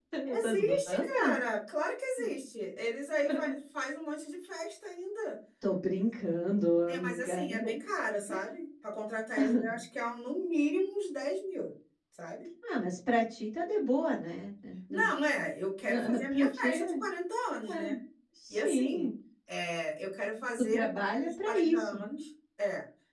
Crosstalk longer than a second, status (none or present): present